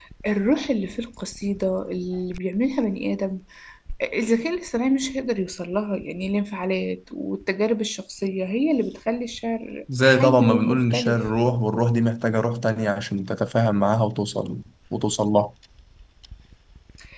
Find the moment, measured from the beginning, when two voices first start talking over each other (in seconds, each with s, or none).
9.9 s